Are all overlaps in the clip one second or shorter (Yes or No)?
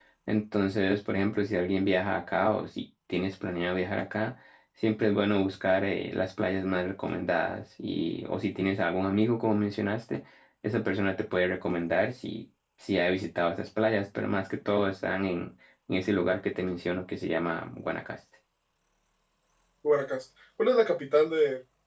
Yes